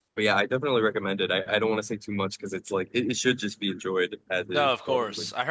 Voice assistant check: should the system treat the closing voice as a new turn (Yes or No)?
Yes